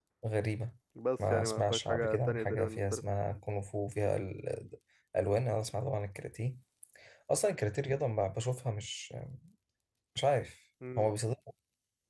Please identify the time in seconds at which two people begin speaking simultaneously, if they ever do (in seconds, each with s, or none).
1.2 s